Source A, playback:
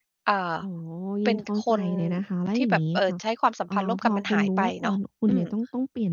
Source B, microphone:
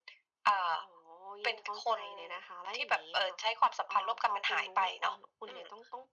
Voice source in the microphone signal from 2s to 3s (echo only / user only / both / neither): echo only